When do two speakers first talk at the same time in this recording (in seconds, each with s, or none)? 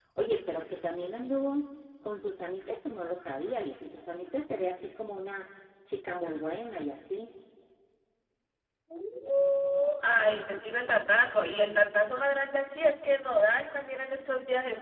none